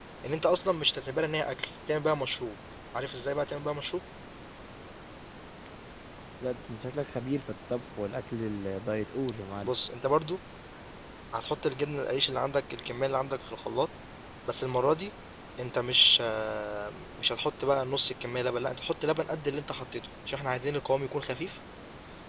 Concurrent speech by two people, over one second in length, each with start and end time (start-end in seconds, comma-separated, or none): none